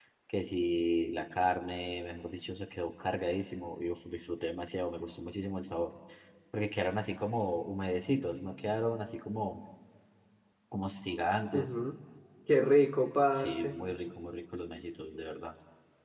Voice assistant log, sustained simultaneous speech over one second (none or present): none